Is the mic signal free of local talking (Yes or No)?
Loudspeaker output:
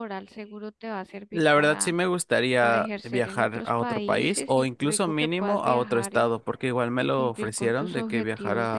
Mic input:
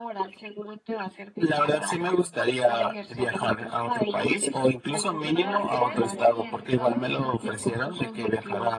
No